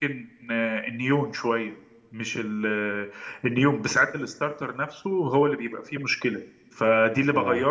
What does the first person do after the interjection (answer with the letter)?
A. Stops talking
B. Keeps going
B